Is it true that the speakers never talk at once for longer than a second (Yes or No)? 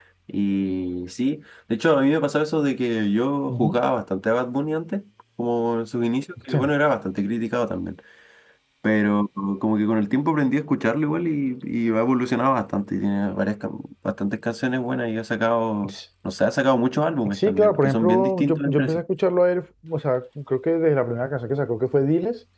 No